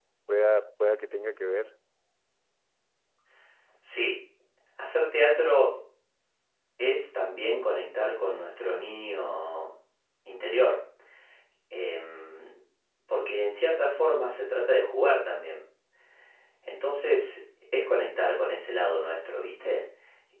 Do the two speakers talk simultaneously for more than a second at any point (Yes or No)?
No